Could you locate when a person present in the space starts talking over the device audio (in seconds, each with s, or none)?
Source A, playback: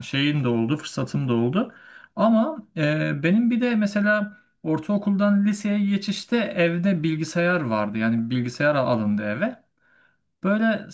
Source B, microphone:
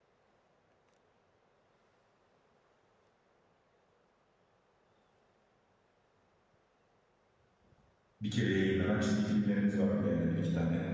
8.2 s